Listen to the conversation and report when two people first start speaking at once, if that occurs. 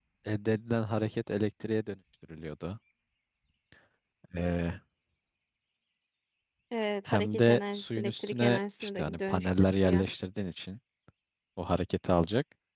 7.1 s

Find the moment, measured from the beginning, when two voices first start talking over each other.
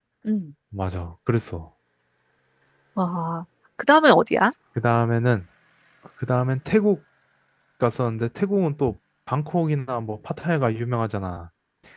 none

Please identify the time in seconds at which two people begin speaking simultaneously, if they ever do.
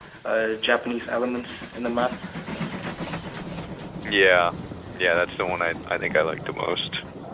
none

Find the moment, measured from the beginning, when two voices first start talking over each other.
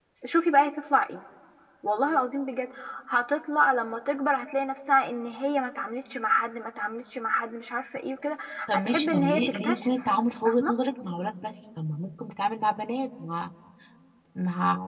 8.7 s

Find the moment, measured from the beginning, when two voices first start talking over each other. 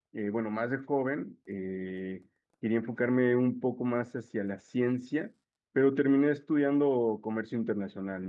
none

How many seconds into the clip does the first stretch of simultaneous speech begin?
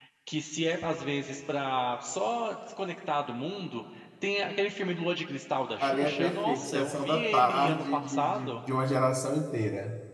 5.8 s

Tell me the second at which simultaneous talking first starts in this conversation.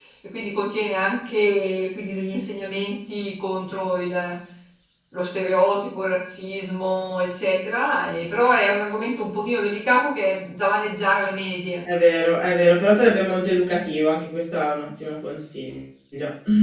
none

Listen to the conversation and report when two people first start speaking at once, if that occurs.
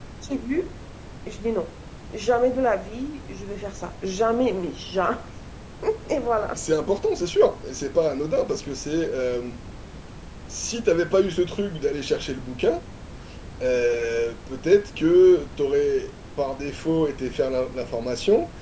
none

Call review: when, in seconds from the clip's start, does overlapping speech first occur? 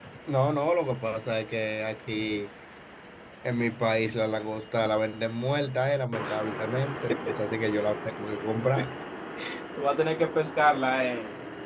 none

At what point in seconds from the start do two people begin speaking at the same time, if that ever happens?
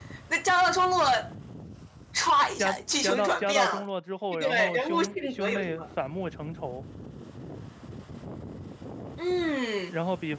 2.6 s

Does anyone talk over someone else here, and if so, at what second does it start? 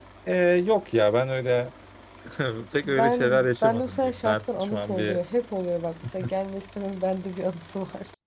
2.8 s

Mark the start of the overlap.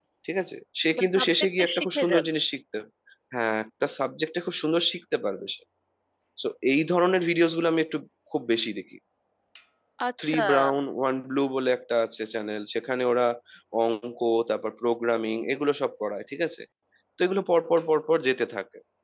1.1 s

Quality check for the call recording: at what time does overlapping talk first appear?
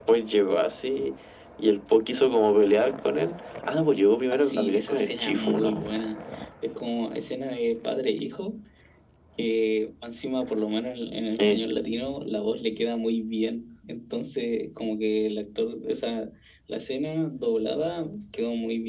4.3 s

